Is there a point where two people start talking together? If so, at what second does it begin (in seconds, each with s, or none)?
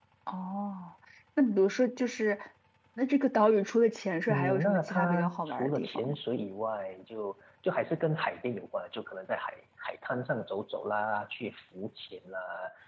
4.3 s